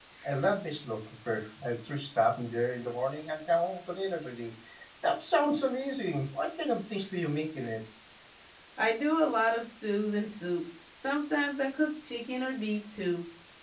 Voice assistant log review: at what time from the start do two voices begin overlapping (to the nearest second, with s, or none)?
none